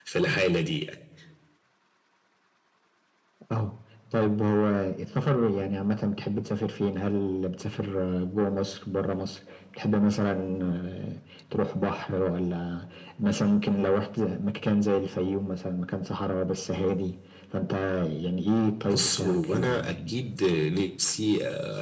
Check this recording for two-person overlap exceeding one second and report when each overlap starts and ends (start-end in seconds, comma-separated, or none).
18.9-20.1